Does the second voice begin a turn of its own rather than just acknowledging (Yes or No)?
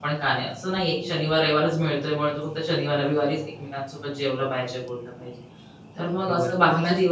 Yes